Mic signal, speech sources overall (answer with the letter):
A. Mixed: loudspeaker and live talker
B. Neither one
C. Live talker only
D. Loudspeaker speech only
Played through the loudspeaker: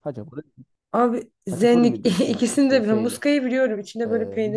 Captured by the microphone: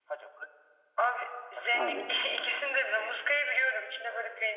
A